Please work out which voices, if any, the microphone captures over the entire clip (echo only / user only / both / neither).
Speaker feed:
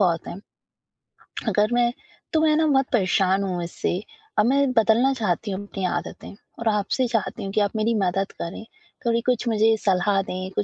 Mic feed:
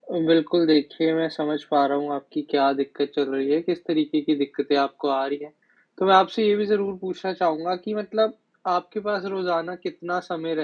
user only